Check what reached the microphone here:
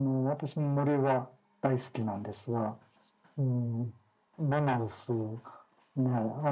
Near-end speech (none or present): none